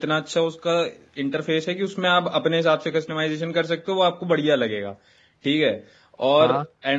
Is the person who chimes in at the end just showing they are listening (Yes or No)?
Yes